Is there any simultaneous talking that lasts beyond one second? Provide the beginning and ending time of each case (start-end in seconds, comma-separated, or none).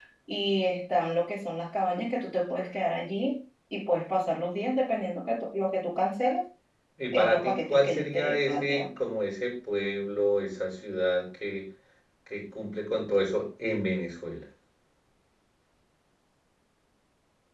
7.1-8.9